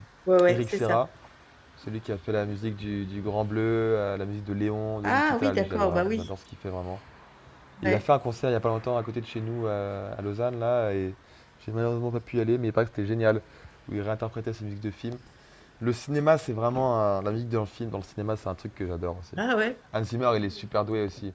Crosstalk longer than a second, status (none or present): present